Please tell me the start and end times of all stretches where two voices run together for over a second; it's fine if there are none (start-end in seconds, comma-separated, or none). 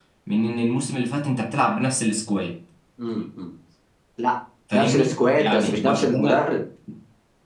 4.7-6.5